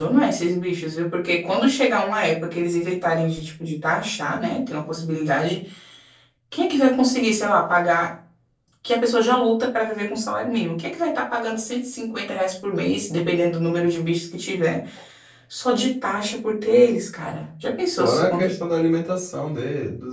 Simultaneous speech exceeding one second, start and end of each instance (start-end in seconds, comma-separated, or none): none